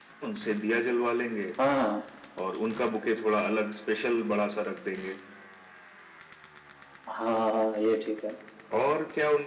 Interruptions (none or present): none